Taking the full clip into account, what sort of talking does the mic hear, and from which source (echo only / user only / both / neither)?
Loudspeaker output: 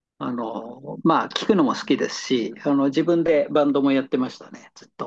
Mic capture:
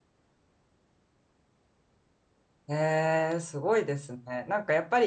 user only